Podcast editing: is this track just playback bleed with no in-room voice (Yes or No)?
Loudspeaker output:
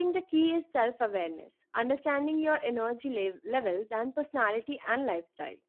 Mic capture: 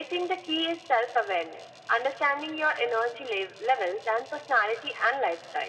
Yes